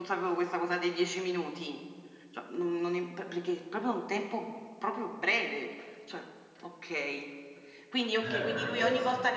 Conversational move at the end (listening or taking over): listening